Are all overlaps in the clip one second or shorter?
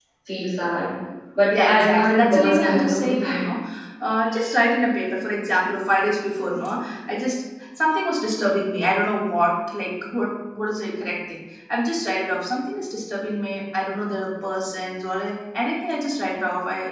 No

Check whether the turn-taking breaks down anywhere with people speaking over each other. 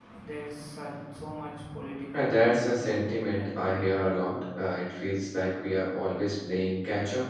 Yes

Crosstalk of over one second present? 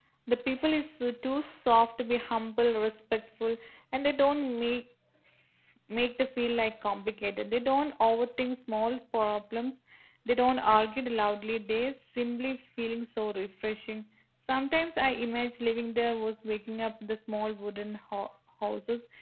No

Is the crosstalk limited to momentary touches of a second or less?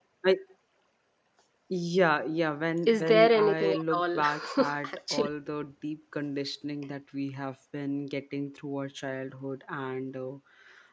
No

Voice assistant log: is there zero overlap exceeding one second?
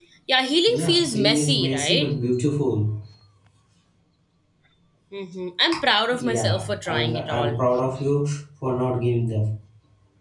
No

